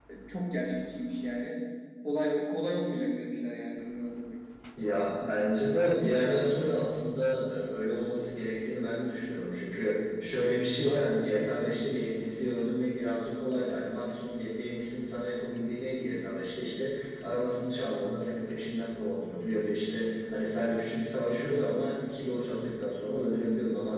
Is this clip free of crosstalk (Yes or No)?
Yes